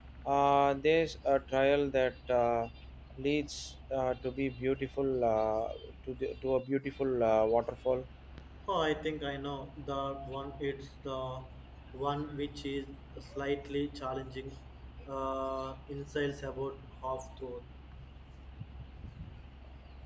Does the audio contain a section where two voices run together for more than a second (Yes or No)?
No